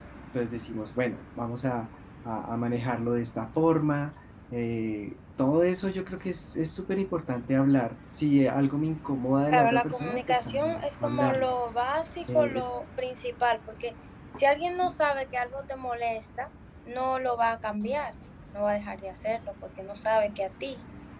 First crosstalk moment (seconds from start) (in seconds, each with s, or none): 9.5 s